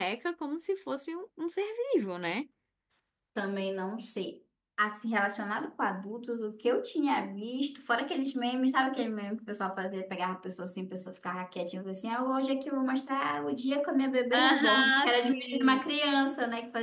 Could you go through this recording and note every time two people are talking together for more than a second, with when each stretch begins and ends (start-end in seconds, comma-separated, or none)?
14.3-15.8